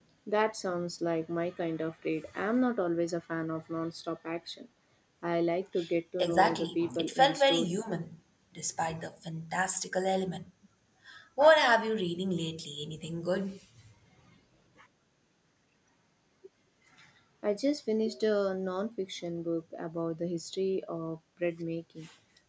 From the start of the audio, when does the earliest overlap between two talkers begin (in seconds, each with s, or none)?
6.2 s